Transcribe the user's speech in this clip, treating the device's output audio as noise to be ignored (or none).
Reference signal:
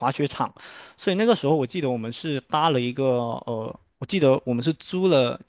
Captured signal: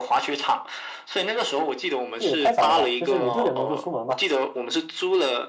这也太早了吧？就是你六点钟就出门嘛？